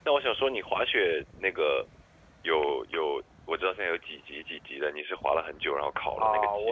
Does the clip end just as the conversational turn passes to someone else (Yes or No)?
Yes